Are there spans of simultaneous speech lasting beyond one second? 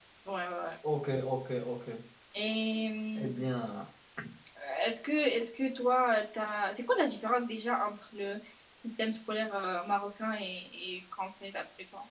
No

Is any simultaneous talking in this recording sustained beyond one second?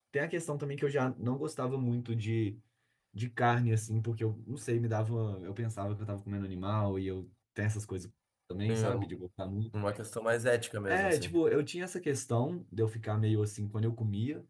No

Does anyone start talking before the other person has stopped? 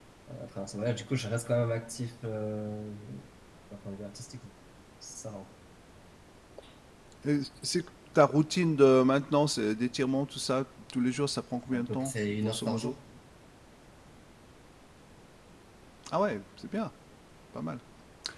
Yes, from 11.7 s

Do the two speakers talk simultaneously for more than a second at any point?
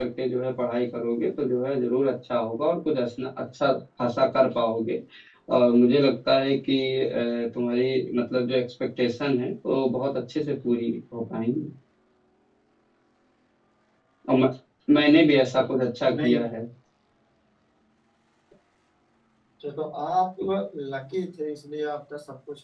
No

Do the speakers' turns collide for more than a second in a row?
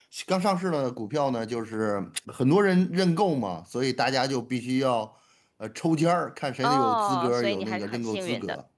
Yes, from 6.6 s

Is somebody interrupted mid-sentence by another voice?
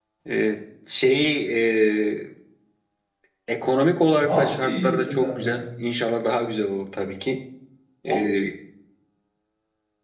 Yes, from 4.2 s

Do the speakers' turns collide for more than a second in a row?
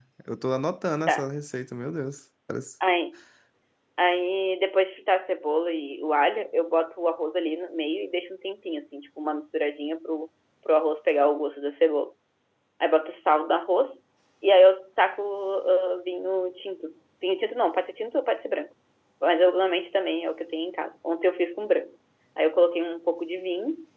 No

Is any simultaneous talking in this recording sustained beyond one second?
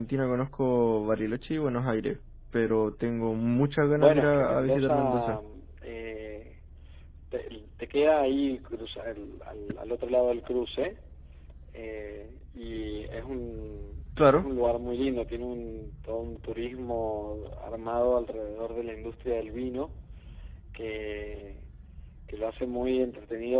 Yes, from 4.0 s

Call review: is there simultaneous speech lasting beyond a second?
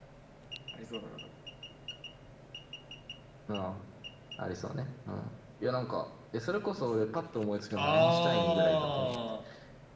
Yes, from 7.8 s

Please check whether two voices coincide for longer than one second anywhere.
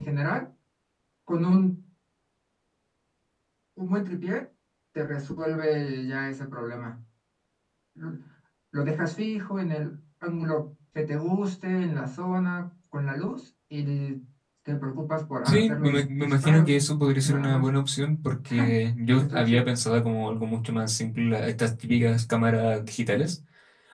Yes, from 15.4 s

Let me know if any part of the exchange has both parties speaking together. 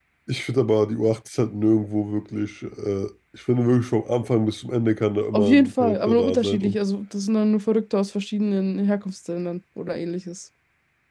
Yes, from 5.3 s

